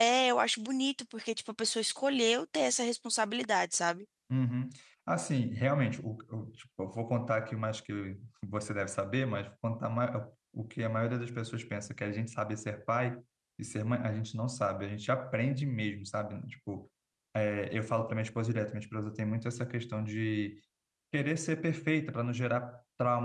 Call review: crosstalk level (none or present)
none